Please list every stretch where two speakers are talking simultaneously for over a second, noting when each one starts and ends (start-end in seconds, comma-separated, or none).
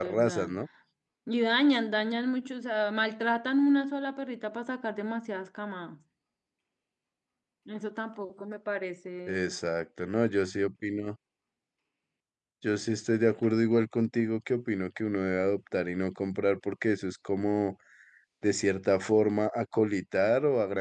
none